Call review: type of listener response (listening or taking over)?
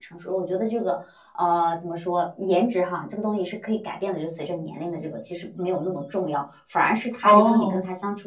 listening